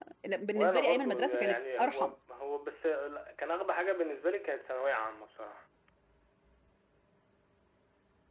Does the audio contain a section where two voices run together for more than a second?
Yes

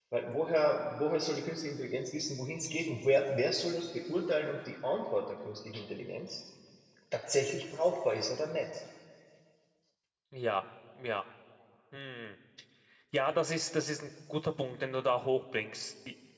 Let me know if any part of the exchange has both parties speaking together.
No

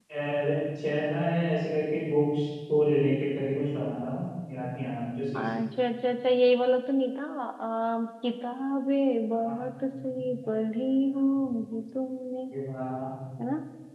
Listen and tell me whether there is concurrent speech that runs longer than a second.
No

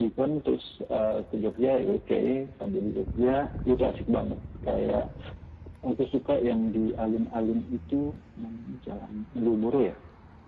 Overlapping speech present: No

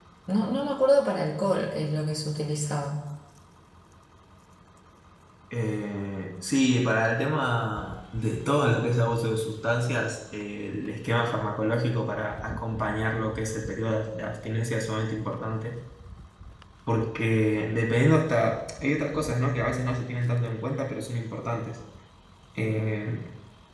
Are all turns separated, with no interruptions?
Yes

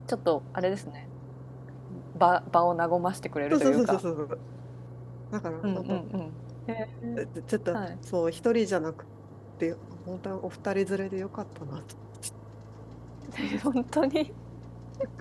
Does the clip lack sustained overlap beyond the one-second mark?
Yes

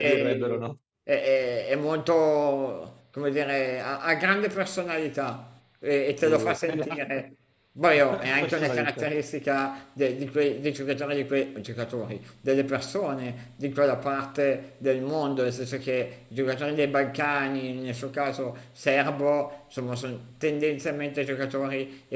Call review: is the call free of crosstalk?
No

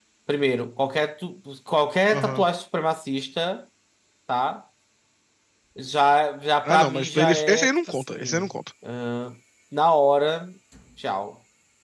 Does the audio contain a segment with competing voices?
Yes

